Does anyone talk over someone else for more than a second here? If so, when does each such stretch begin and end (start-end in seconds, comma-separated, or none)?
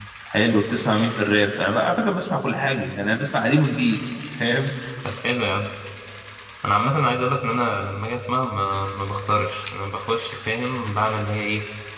none